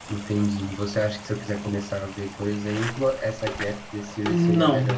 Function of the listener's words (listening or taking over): taking over